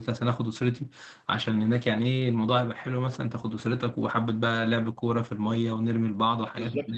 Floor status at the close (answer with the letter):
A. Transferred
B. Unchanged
A